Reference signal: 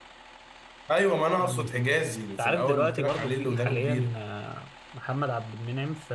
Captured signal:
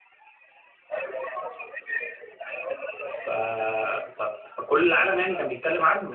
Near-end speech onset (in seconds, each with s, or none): 3.0 s